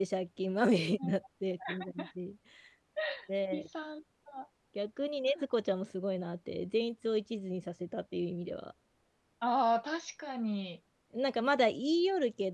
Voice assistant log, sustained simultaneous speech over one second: none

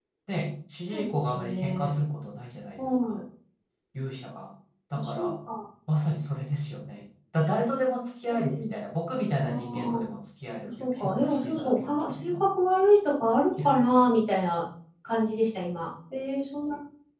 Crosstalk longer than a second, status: present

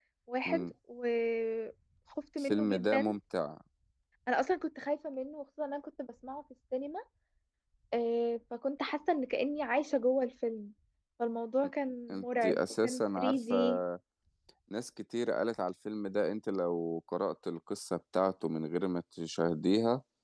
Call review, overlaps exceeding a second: present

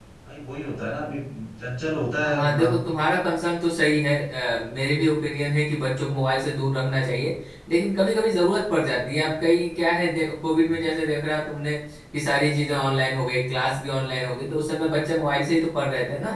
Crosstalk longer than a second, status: none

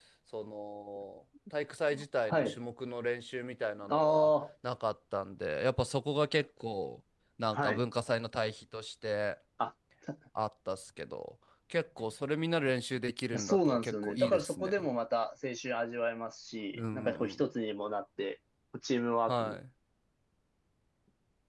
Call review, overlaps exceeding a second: present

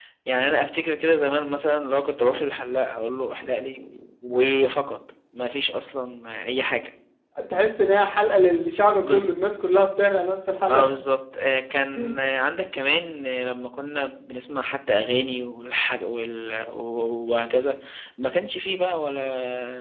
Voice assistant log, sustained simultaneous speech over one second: none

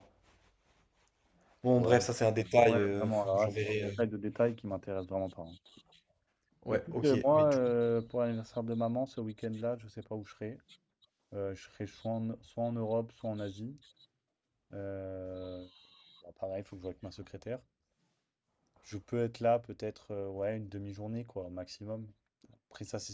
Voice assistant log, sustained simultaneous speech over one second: present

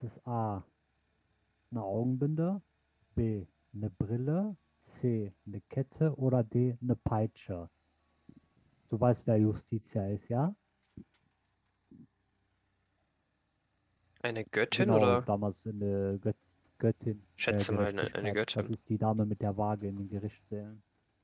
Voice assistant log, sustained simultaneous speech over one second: present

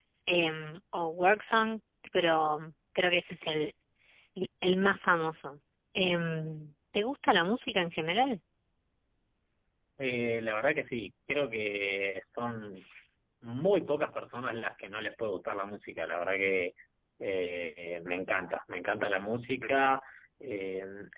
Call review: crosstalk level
none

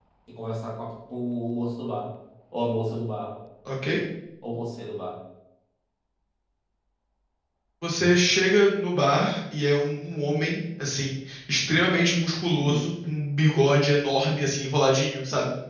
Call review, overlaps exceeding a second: none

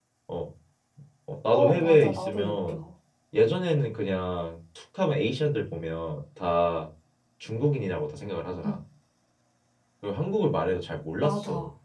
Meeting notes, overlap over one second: present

